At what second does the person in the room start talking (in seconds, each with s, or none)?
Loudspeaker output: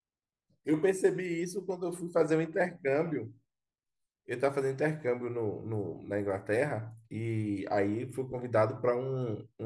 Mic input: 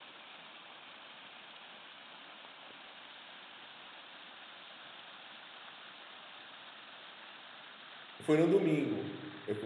8.2 s